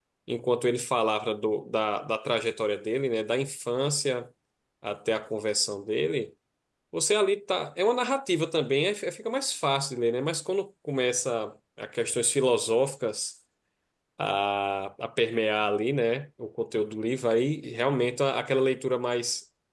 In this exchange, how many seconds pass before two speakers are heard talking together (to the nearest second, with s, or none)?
none